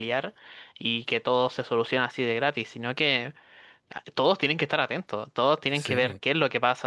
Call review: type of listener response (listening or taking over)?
listening